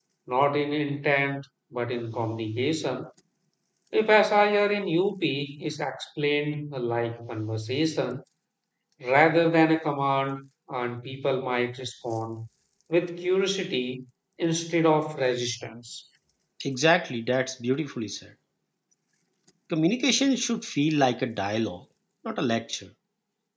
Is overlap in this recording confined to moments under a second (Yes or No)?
Yes